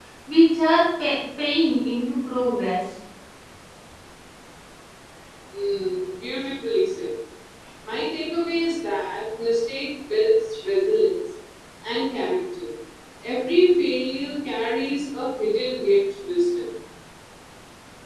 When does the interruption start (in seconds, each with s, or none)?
none